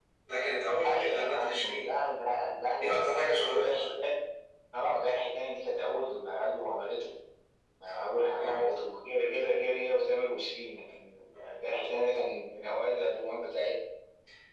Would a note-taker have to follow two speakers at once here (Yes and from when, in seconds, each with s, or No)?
Yes, from 0.7 s